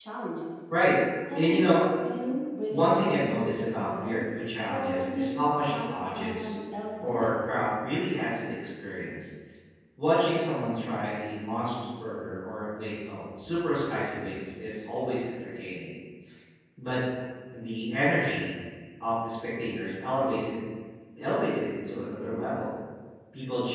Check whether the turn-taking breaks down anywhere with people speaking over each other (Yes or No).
Yes